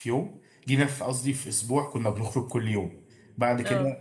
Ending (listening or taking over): listening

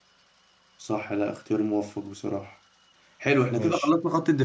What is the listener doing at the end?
listening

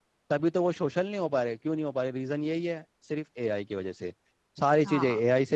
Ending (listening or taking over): listening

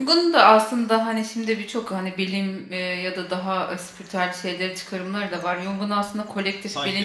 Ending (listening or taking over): listening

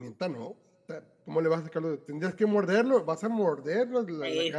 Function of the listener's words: taking over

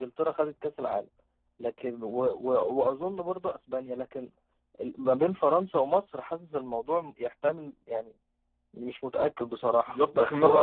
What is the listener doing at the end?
taking over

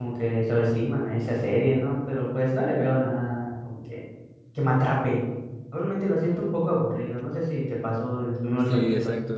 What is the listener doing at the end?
taking over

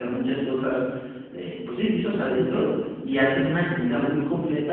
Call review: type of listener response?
listening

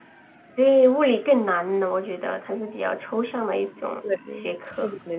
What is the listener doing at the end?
taking over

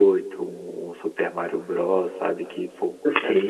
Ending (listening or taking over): taking over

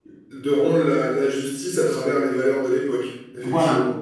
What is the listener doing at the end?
taking over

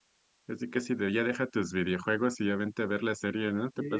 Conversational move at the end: taking over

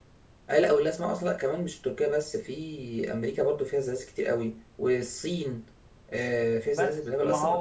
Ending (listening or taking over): taking over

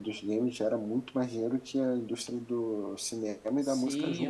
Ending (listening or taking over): taking over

